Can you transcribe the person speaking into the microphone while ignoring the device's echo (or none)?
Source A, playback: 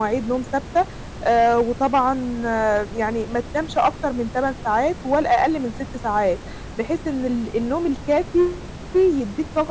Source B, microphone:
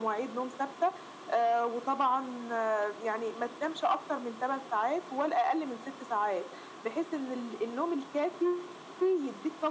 none